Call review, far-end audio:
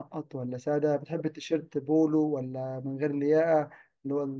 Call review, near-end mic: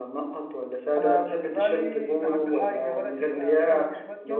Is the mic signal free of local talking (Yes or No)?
No